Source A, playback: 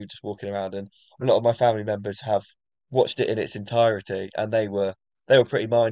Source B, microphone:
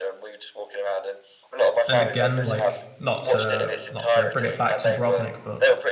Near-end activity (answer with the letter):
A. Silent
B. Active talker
B